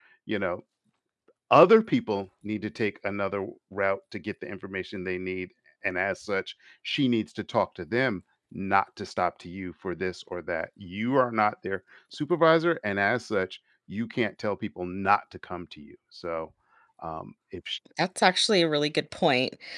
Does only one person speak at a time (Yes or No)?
Yes